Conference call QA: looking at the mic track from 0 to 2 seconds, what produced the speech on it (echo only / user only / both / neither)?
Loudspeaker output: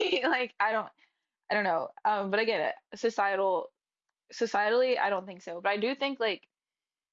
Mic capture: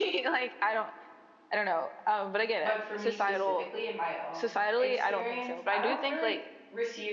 echo only